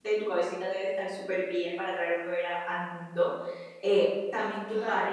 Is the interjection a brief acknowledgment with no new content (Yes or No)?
Yes